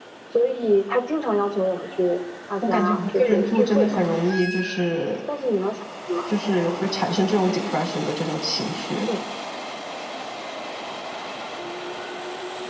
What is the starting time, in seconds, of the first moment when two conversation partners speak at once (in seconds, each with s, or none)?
2.6 s